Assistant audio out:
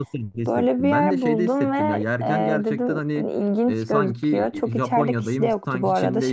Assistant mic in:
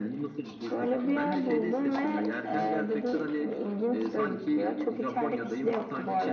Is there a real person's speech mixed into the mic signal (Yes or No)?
No